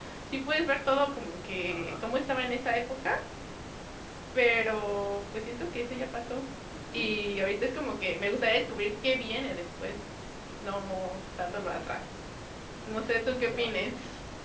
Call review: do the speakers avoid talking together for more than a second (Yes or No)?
Yes